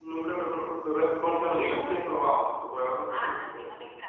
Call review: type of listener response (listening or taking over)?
taking over